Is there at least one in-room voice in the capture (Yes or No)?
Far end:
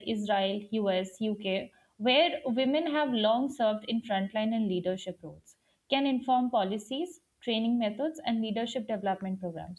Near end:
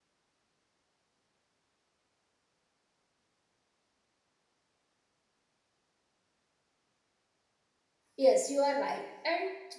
Yes